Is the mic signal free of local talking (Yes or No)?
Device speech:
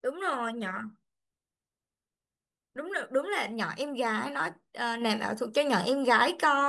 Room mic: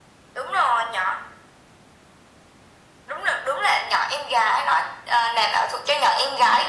Yes